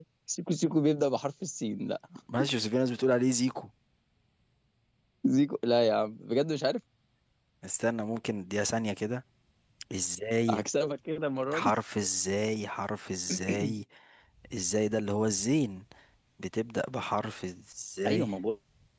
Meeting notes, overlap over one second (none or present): none